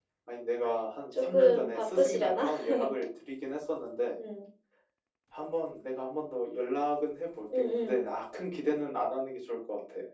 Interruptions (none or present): present